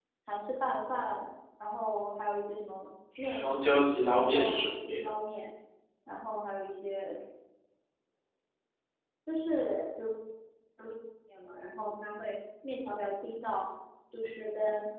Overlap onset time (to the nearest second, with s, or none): 3 s